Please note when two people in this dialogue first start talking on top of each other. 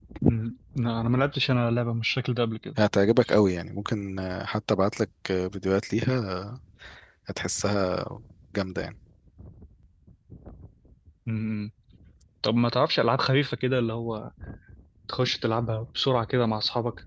none

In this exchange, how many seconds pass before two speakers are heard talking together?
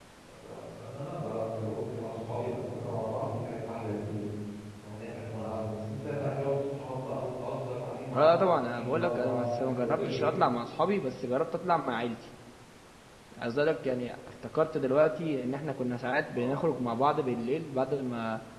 8.1 s

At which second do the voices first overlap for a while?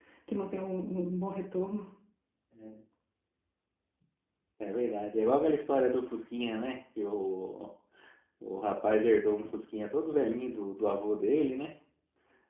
none

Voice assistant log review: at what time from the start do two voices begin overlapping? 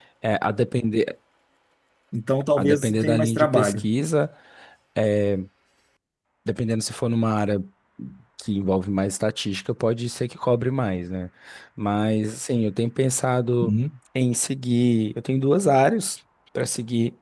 2.6 s

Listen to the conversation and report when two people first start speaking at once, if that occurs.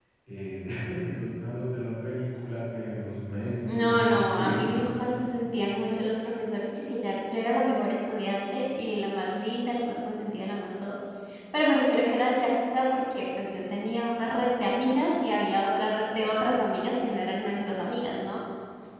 3.7 s

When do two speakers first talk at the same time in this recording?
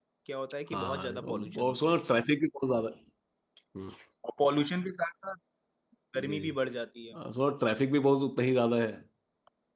0.7 s

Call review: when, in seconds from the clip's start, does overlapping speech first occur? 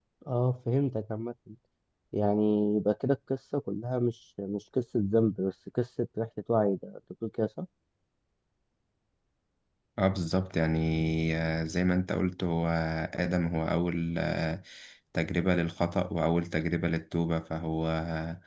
none

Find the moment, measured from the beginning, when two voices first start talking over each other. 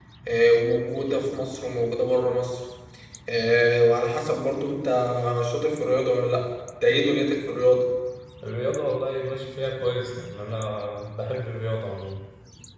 none

